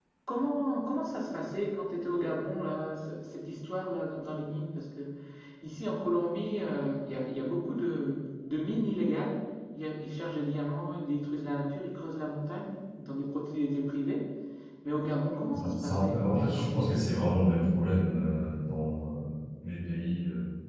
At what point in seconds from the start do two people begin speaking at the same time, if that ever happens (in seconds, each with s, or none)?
15.5 s